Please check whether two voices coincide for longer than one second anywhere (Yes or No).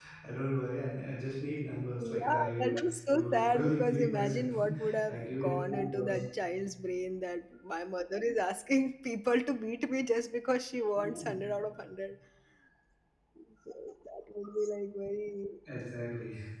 Yes